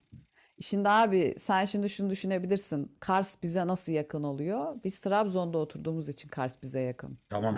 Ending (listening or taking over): taking over